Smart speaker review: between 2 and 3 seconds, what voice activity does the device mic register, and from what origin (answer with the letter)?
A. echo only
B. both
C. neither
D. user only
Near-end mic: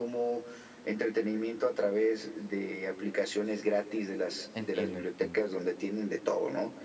A